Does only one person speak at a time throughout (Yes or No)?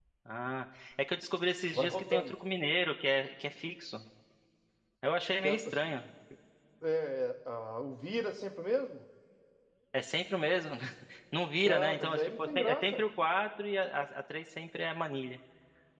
No